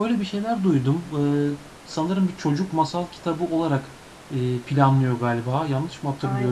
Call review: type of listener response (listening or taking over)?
taking over